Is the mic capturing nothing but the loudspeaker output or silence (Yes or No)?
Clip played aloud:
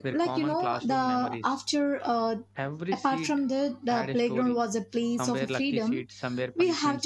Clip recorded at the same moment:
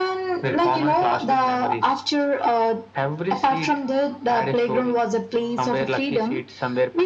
Yes